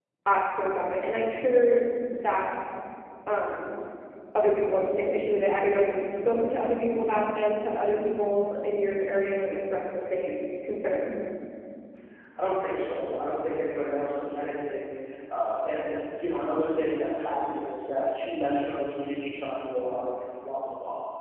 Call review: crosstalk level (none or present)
none